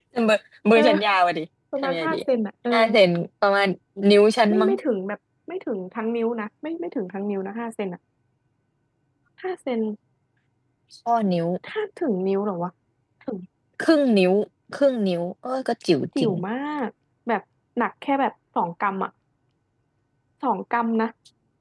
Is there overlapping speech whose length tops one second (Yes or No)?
No